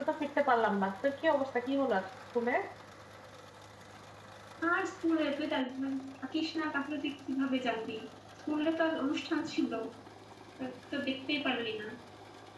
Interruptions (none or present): none